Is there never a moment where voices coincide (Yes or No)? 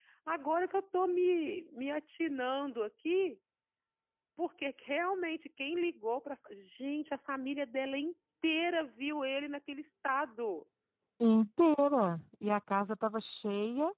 Yes